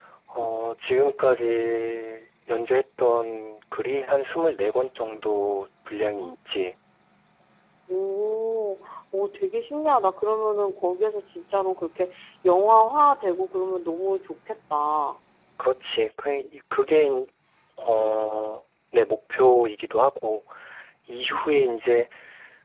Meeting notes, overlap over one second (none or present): none